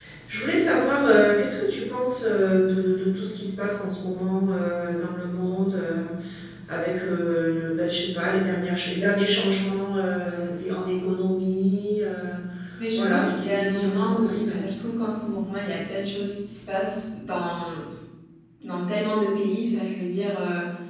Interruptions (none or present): present